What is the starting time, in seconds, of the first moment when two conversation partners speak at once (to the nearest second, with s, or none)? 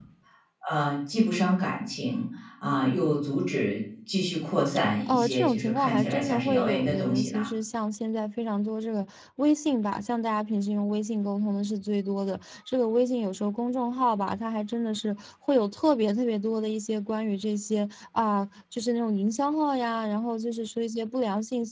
5 s